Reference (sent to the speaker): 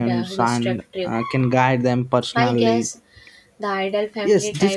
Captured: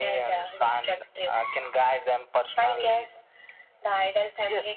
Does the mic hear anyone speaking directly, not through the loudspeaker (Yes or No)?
No